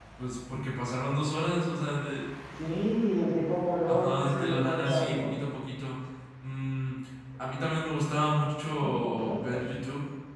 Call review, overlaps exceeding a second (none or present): present